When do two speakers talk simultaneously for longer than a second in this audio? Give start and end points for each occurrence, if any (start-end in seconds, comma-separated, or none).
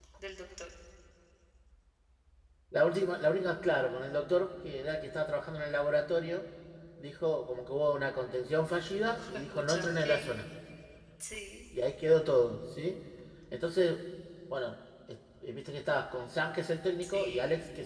9.1-10.3